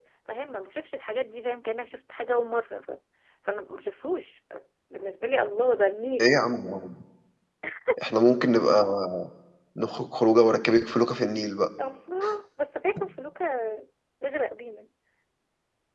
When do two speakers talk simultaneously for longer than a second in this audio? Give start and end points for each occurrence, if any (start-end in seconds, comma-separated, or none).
none